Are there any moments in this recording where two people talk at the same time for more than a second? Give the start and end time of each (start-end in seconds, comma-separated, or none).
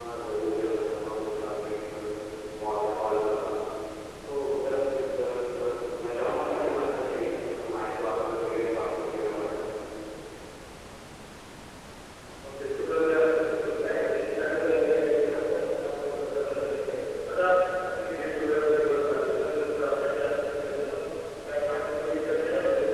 none